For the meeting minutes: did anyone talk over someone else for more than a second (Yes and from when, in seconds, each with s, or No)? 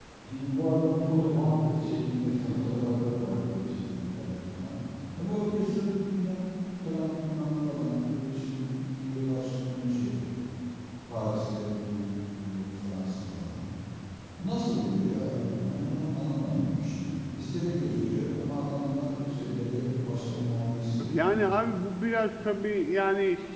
No